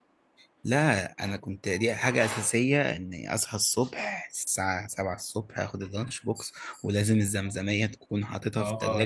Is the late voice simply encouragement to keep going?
No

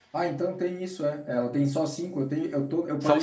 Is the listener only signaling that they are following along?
No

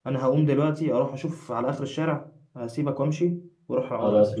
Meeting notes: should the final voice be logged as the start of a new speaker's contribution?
No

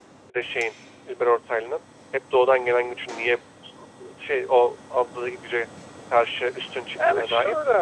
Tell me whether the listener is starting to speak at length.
Yes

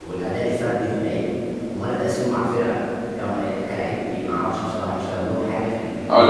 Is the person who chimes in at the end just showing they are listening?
No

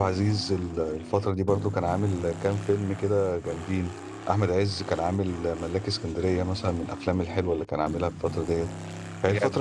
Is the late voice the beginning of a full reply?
No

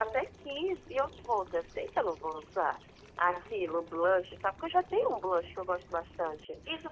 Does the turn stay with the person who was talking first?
No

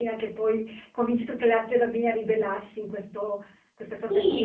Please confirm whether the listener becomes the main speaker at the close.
Yes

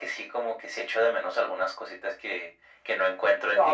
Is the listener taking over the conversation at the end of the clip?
Yes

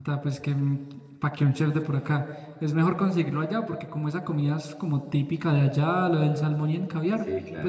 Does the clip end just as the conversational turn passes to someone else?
No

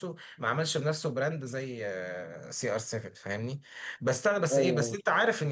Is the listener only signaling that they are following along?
Yes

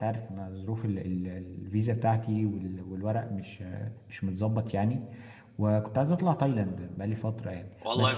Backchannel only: No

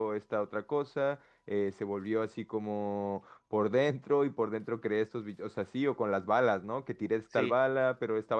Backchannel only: Yes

